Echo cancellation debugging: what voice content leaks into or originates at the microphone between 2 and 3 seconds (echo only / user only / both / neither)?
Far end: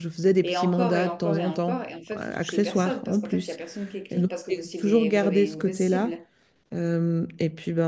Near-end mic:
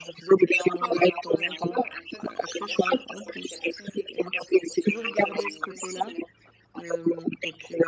echo only